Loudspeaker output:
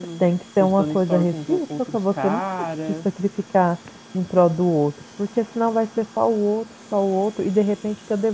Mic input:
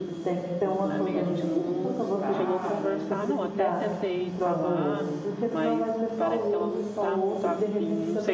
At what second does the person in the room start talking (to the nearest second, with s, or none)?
1 s